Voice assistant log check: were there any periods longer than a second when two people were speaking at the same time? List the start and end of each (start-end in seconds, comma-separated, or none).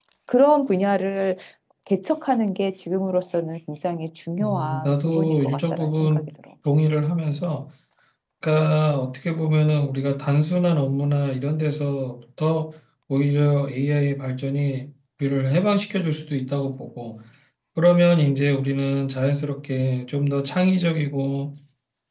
4.4-6.3